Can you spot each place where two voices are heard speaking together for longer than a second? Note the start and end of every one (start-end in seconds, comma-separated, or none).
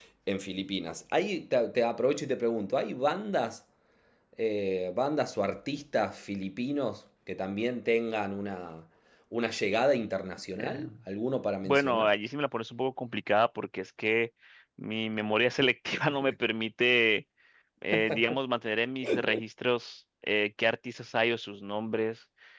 none